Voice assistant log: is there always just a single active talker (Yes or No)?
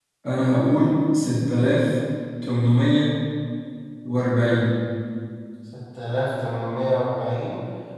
Yes